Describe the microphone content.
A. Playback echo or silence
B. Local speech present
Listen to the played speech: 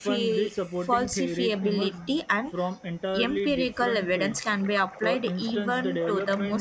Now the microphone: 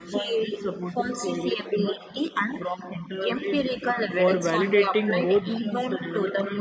B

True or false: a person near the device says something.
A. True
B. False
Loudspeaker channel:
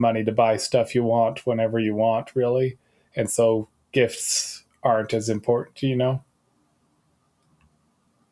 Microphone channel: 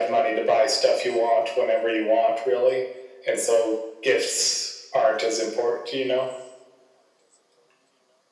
B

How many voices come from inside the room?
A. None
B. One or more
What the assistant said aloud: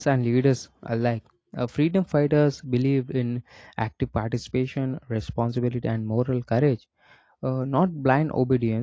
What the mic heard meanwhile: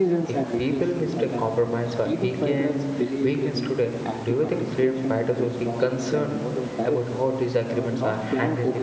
B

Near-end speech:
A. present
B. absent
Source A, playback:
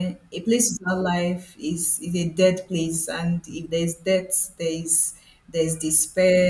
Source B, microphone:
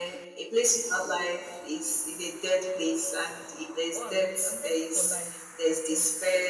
A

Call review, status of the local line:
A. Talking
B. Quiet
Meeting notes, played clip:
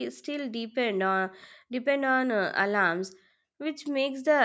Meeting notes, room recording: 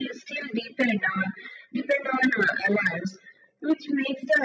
B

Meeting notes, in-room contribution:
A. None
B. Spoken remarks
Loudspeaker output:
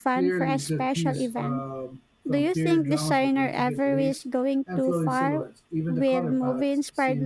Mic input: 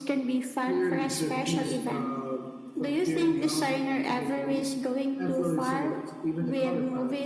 A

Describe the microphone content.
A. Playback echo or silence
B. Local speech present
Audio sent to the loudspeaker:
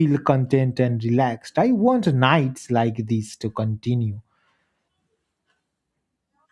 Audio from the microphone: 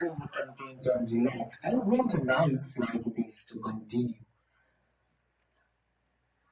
A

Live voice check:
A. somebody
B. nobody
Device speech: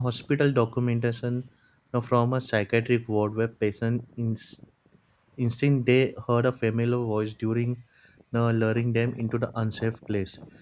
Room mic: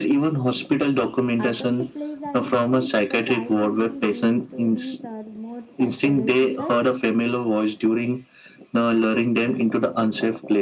A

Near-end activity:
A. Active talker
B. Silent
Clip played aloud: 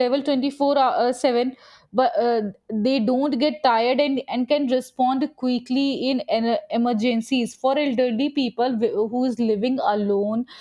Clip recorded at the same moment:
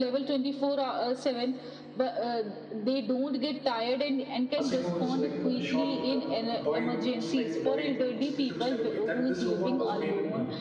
A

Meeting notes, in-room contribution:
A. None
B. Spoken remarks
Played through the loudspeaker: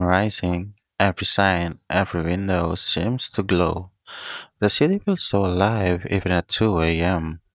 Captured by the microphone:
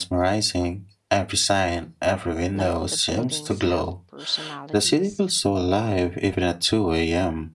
B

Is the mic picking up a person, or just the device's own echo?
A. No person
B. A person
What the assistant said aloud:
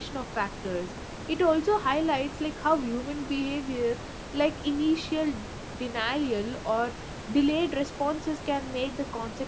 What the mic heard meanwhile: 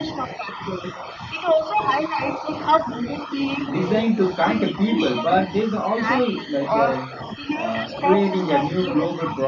B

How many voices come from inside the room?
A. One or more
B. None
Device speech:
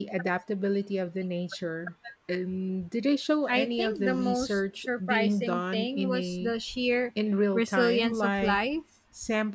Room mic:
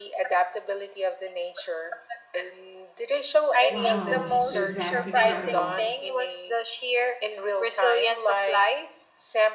A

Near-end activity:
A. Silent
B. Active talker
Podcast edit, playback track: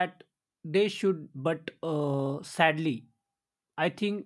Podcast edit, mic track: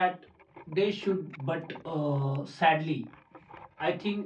A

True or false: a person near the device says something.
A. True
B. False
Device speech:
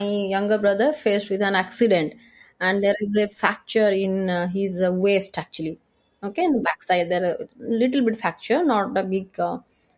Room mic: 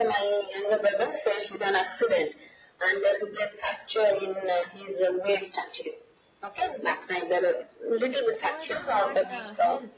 A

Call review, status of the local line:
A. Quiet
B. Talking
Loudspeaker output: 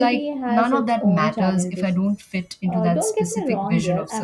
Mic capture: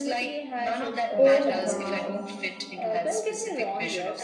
B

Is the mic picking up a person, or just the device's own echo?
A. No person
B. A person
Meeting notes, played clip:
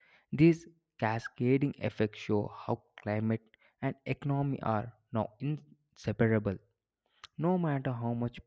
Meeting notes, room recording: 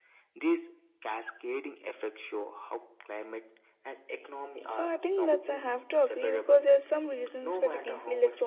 B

